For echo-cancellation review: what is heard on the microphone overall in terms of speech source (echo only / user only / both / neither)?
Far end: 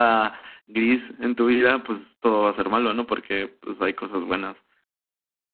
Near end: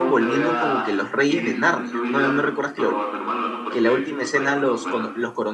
both